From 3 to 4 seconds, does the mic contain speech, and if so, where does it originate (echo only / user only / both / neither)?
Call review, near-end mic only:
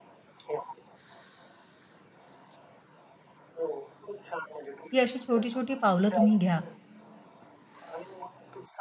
echo only